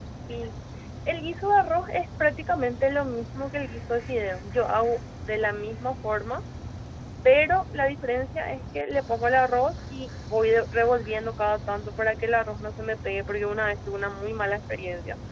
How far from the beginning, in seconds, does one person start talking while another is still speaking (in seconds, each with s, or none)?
none